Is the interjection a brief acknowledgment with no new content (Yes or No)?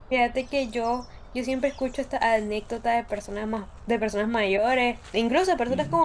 Yes